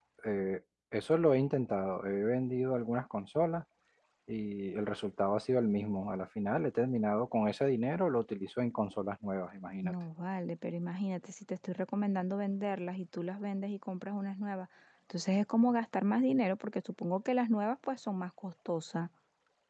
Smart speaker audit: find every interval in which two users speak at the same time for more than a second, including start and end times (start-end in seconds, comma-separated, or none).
none